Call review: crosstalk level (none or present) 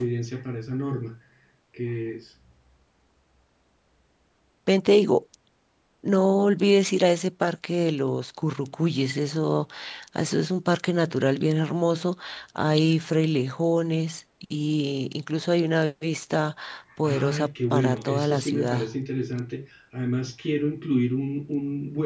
present